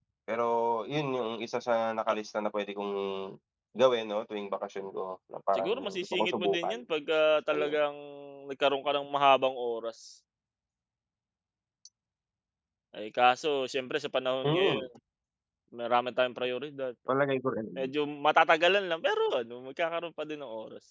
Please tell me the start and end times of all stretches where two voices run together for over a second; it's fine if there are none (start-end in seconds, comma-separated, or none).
5.6-6.8